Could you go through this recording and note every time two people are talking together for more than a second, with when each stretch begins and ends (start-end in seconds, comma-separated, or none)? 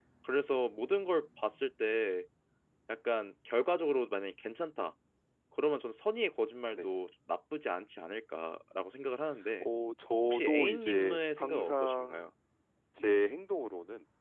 10.2-12.3